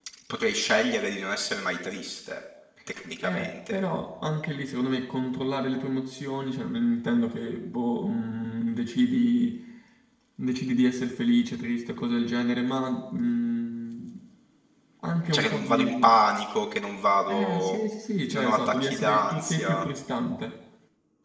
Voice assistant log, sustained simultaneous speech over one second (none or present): present